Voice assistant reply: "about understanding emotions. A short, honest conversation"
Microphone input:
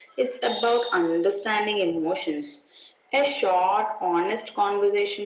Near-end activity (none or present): none